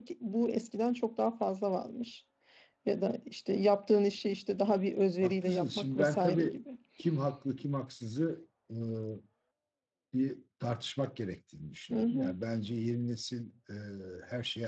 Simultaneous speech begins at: 5.2 s

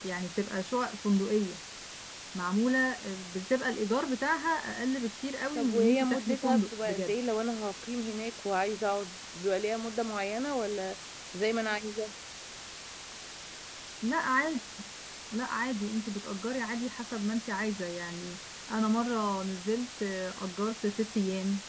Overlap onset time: 5.5 s

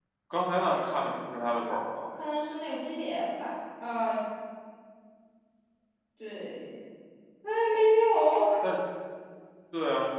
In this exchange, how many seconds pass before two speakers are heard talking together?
none

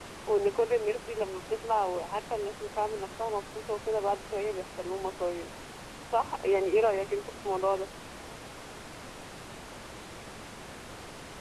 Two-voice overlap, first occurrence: none

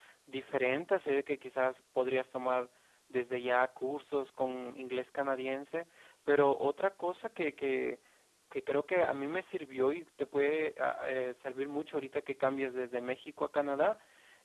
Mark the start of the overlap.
none

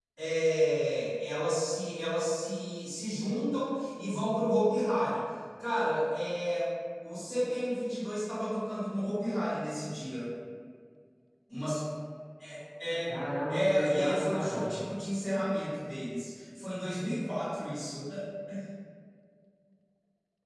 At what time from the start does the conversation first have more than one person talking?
13.5 s

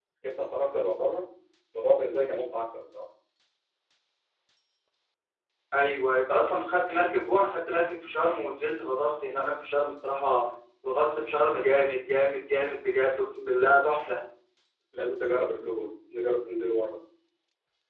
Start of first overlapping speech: none

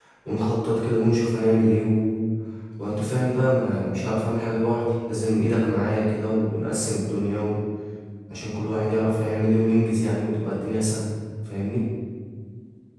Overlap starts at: none

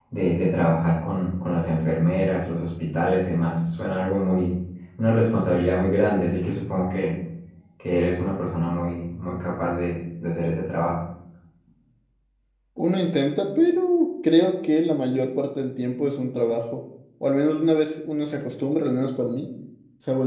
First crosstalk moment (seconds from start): none

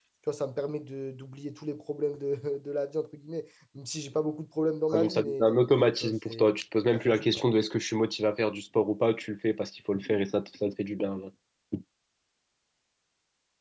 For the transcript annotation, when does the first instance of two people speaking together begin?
4.9 s

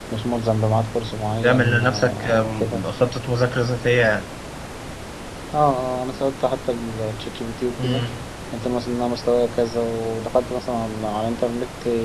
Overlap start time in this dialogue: 1.4 s

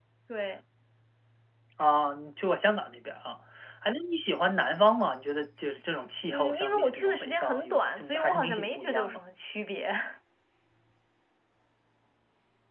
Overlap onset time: 6.3 s

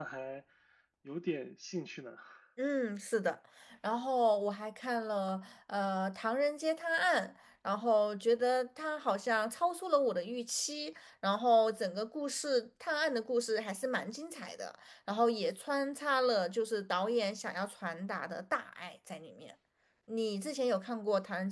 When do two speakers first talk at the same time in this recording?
none

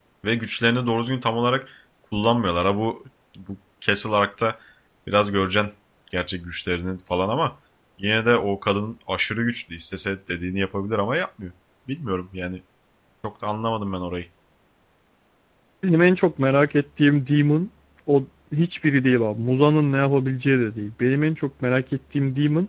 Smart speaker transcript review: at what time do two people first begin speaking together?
none

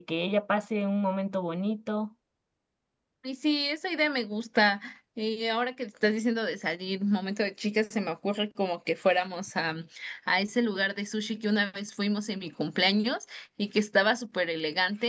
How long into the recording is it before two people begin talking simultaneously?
none

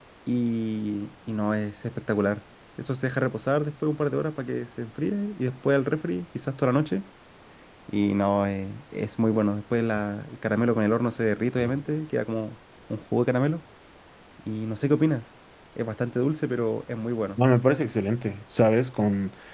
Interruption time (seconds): none

